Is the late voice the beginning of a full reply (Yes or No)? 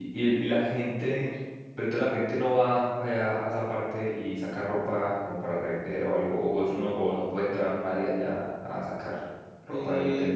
Yes